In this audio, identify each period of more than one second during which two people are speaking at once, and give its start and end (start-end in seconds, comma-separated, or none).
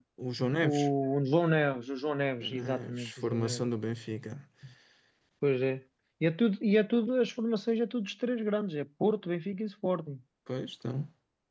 2.4-3.6